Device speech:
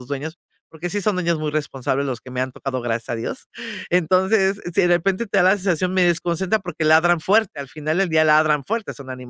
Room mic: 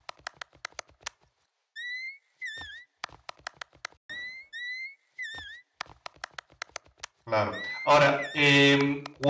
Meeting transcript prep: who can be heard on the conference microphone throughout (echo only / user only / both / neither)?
user only